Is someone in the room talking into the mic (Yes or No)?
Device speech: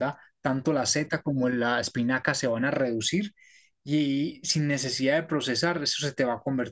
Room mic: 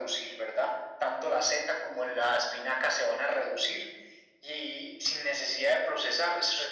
No